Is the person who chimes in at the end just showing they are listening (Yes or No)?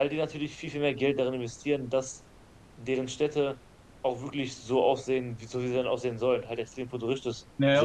No